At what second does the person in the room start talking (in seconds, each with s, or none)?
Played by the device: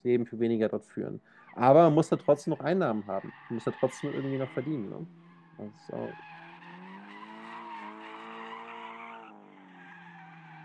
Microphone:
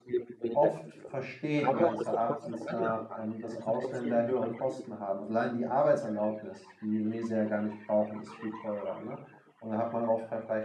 0.5 s